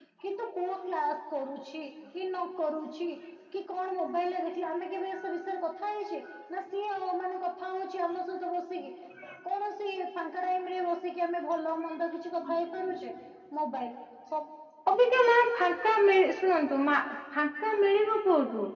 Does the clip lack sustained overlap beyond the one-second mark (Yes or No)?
Yes